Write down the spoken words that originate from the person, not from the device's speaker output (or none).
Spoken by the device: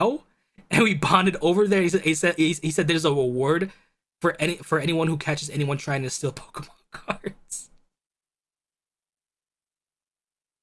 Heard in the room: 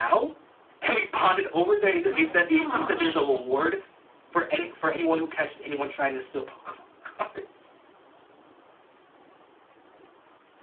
Oh my gosh.